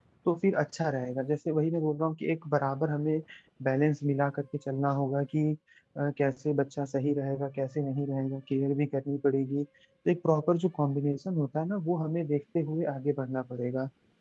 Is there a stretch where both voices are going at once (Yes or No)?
No